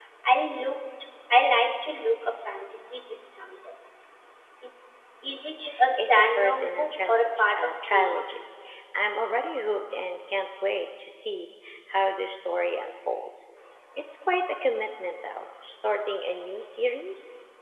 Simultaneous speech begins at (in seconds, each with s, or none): 6.0 s